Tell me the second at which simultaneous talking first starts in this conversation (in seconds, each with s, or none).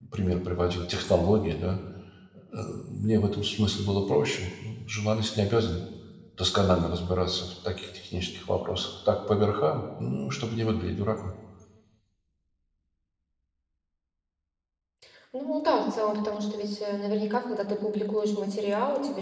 none